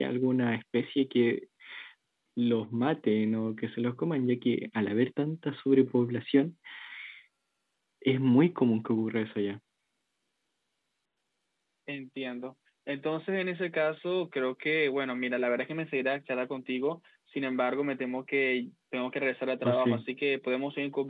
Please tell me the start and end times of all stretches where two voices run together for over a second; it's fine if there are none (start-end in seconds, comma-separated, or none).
none